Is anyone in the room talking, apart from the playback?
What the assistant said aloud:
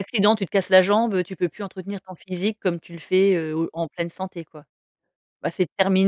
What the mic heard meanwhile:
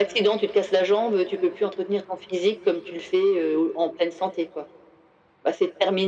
No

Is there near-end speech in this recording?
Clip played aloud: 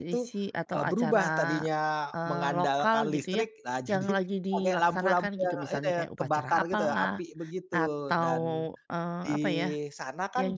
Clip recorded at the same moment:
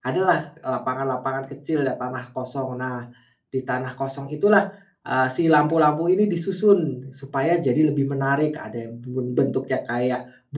Yes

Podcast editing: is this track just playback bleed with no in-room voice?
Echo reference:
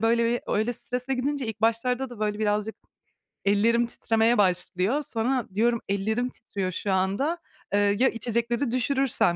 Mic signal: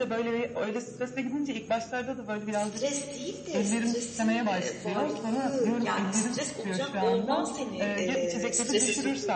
No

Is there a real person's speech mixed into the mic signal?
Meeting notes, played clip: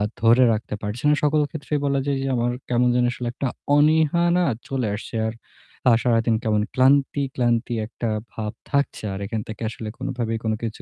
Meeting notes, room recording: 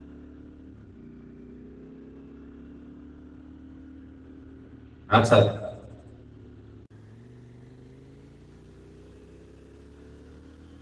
Yes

